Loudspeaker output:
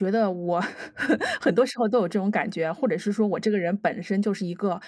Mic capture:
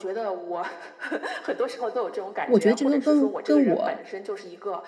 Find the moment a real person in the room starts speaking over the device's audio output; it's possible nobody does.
2.4 s

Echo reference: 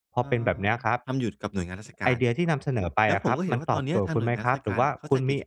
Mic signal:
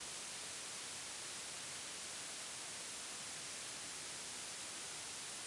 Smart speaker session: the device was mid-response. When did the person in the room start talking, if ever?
none

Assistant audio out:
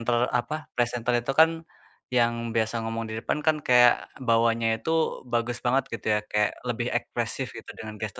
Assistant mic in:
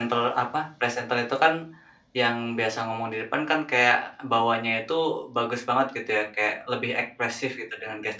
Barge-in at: none

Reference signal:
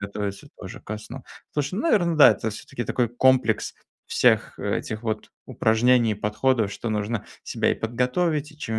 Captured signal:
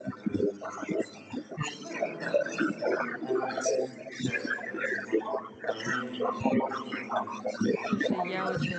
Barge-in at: 7.8 s

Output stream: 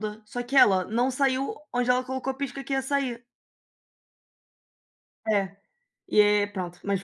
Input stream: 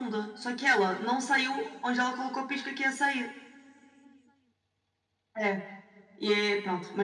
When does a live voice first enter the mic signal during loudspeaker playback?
none

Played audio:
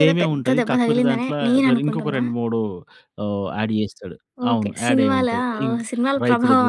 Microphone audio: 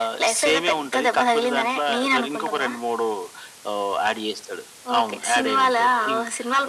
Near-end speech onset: none

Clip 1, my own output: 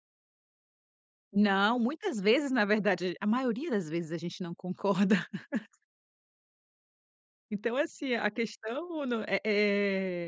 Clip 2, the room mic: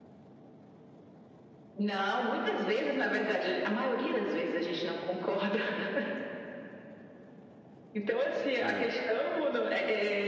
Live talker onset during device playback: 8.6 s

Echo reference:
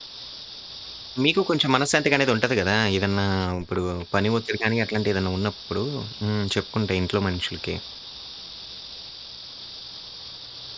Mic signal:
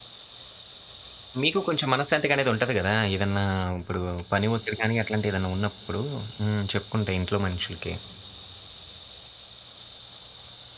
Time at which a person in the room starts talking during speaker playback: none

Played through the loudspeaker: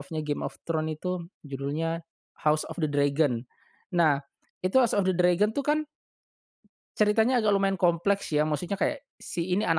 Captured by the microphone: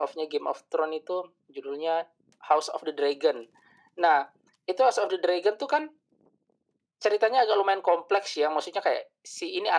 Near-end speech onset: none

